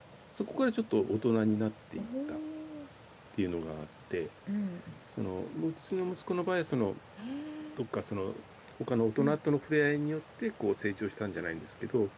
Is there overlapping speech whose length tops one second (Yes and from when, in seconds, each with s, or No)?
No